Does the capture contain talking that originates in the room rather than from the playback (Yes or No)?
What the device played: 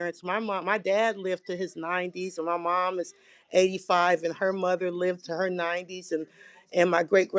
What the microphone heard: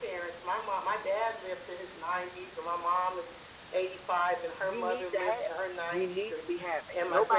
Yes